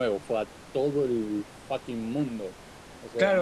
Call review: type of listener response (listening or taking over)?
taking over